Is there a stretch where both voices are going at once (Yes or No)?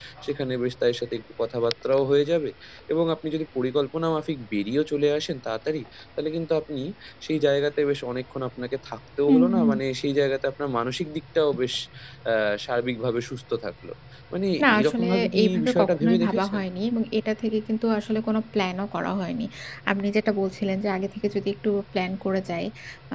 Yes